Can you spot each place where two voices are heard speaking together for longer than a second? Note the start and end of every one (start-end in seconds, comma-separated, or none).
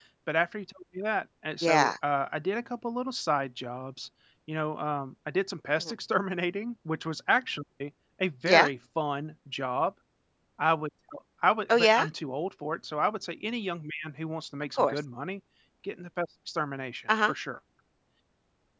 none